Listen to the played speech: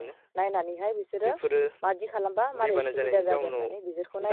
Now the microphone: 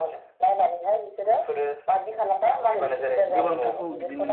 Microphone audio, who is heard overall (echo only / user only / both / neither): both